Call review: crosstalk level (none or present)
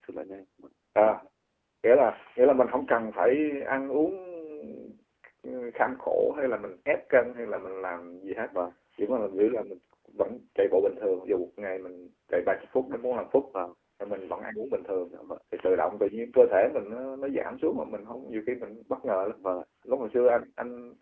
none